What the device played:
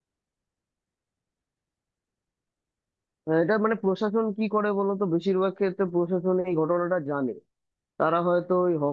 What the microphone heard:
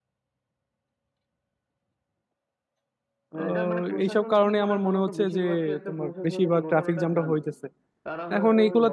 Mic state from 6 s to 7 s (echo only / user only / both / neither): both